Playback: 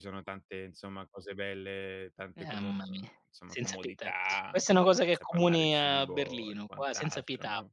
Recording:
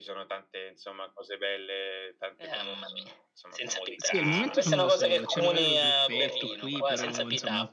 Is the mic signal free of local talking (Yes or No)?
No